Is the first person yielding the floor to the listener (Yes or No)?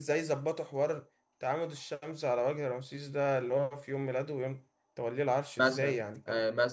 Yes